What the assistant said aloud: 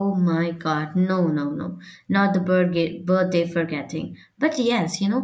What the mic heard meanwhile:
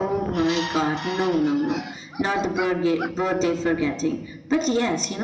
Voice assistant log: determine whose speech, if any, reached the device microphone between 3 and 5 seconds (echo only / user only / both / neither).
echo only